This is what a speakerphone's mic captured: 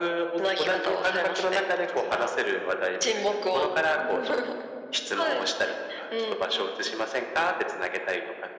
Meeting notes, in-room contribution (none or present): none